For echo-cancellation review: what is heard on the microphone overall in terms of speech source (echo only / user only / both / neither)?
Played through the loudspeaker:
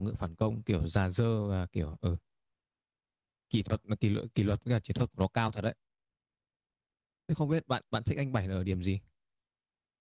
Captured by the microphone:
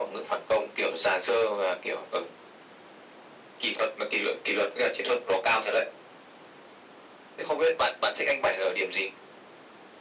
echo only